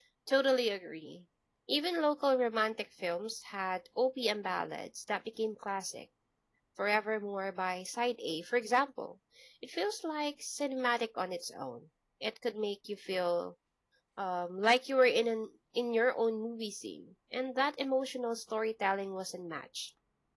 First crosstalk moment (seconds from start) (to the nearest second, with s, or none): none